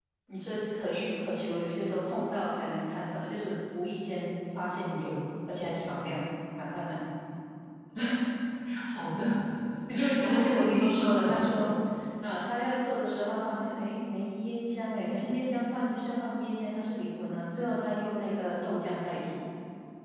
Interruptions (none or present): present